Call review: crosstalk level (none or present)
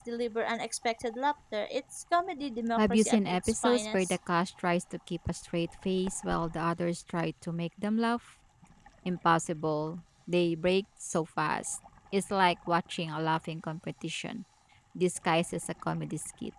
present